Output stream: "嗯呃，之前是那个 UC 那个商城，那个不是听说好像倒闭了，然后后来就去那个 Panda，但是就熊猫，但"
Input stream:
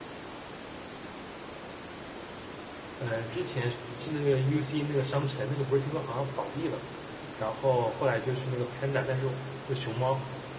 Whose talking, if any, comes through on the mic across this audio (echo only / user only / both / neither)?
echo only